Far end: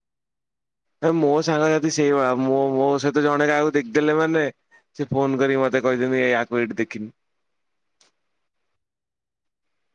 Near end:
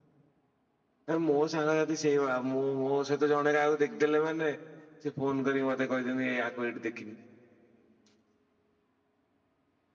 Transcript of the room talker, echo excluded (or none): none